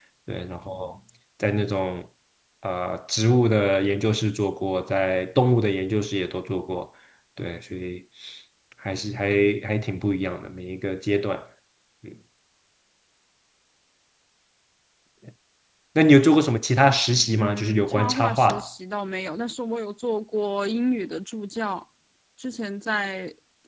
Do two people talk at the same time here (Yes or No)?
Yes